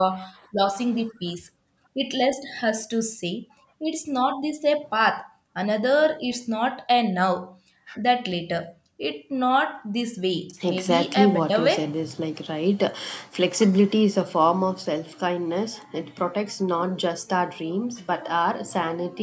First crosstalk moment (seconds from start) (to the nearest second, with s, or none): 11 s